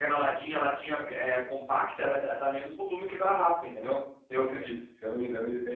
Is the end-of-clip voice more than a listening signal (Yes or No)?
Yes